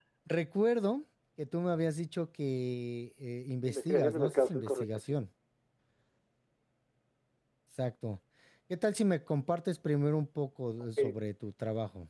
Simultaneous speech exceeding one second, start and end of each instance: 3.6-5.2

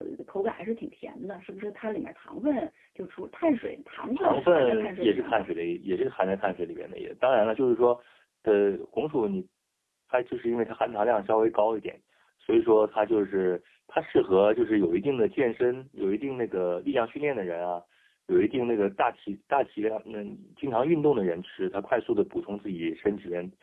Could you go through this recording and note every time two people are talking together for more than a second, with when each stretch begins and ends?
4.2-5.5

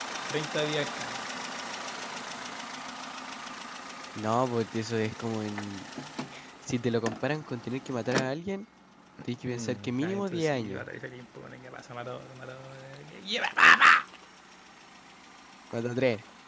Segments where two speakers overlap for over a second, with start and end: 9.4-10.8

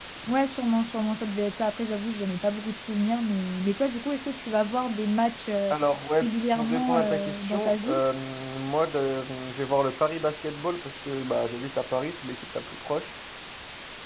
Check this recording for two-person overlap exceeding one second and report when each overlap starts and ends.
6.2-8.0

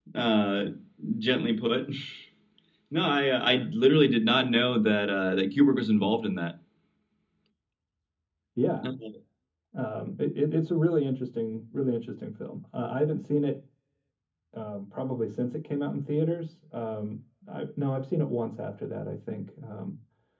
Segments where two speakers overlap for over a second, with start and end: none

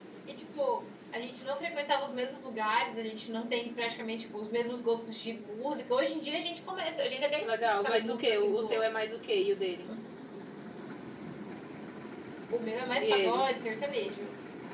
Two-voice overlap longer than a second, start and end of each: 7.4-8.9

